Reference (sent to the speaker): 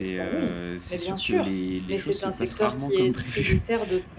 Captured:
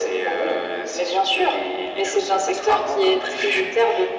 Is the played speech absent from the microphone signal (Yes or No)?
No